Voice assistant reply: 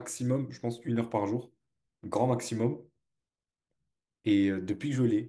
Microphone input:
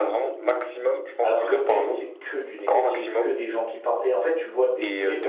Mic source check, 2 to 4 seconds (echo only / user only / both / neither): both